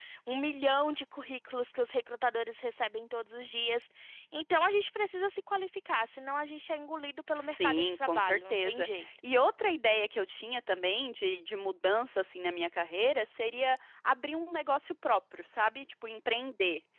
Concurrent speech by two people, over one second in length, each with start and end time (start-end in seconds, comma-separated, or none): 7.3-9.1